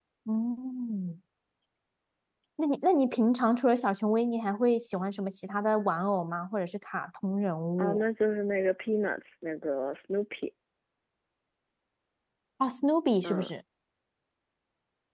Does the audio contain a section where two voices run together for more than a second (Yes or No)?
No